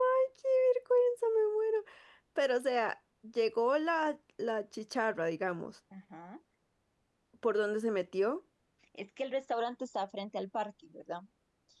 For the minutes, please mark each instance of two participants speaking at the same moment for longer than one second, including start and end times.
none

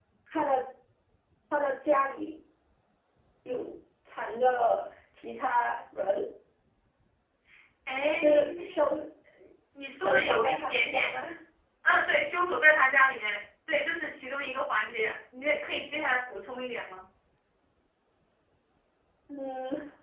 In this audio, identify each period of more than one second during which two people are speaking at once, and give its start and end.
10.0-11.2

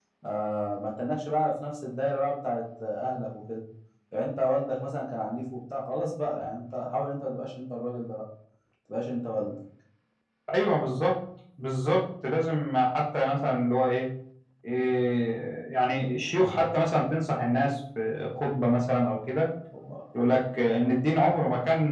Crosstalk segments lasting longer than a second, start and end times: none

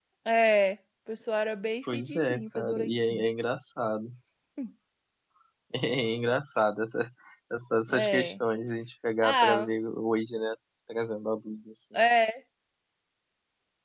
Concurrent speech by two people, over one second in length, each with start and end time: 1.9-3.2

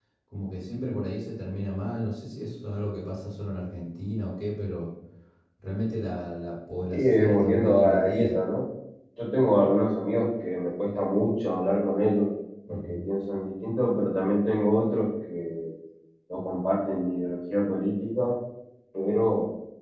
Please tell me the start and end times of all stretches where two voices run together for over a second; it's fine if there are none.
6.9-8.4

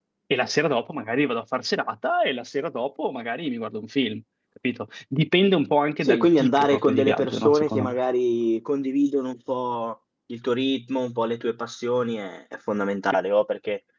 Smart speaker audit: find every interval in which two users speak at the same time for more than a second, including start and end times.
6.0-8.0

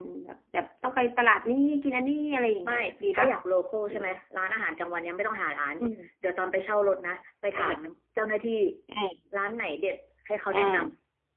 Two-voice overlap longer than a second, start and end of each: none

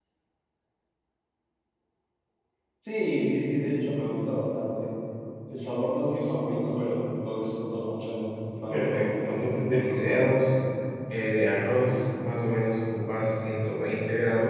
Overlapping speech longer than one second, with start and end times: 8.7-10.4

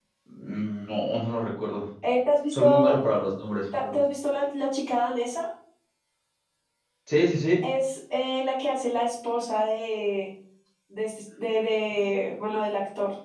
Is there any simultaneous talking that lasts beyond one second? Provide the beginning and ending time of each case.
none

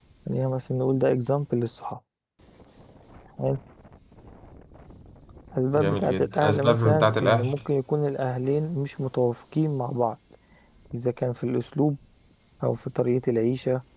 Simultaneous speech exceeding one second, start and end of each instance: 5.7-7.5

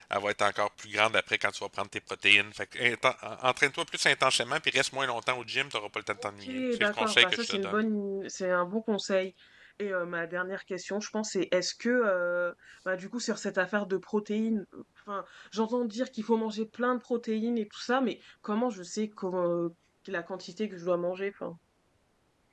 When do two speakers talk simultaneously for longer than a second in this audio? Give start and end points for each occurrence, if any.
6.2-7.7

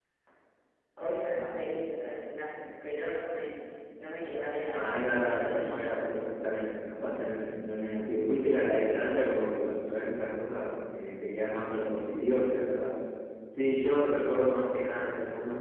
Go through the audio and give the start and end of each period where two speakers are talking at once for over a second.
4.7-6.2

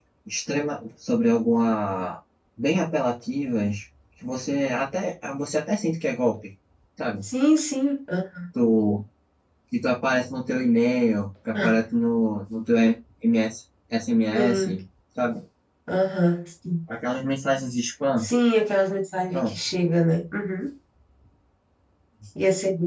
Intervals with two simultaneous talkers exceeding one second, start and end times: none

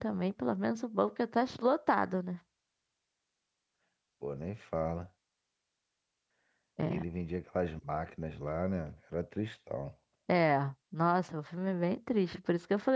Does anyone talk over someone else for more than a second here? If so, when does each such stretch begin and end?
none

